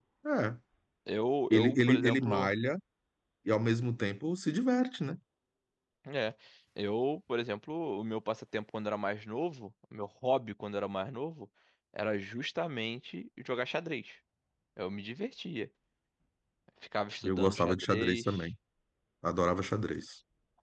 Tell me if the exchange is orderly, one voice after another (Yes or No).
No